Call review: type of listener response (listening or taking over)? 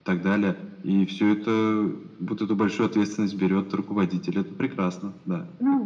taking over